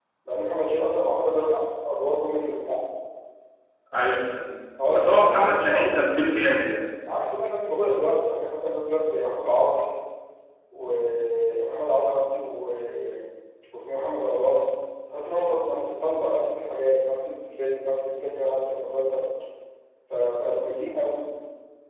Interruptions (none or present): present